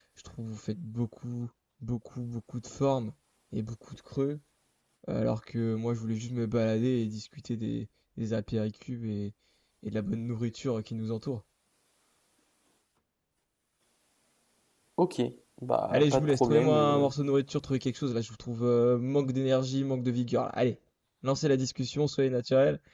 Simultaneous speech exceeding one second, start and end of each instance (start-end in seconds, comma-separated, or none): 15.9-17.1